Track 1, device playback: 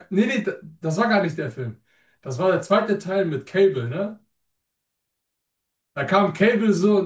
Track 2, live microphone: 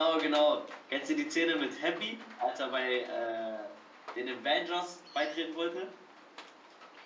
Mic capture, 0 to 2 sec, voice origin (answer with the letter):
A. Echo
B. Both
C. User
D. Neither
C